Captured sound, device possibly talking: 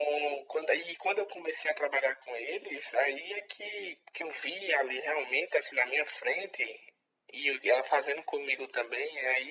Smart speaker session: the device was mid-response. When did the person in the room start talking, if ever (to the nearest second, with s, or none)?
none